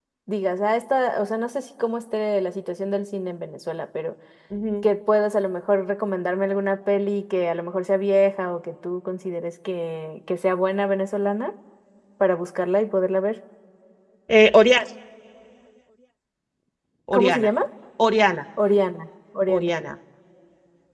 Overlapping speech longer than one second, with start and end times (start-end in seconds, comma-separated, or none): none